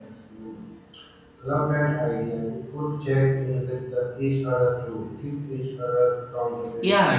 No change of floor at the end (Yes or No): No